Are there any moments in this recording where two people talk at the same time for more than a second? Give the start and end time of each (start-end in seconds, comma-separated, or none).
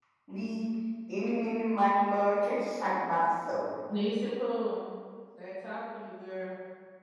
none